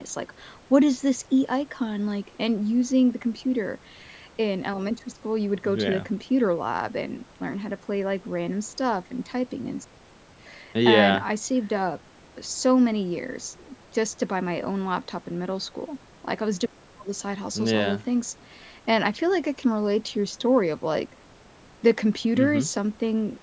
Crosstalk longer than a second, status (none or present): none